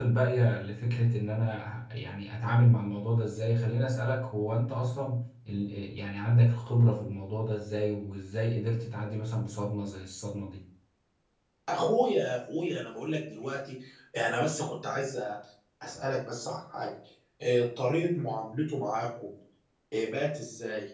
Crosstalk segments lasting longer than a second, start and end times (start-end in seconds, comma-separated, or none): none